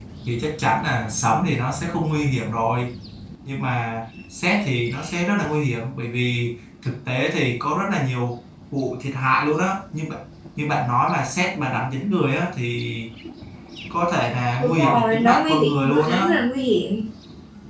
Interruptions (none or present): present